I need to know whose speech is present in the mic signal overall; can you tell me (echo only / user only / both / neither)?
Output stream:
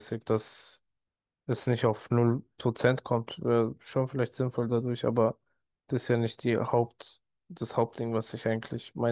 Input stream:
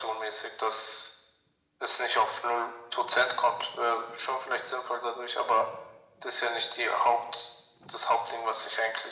echo only